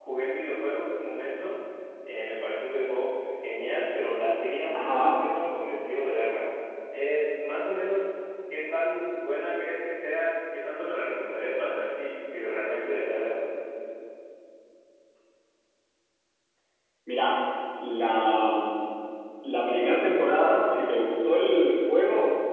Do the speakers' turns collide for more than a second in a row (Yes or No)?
No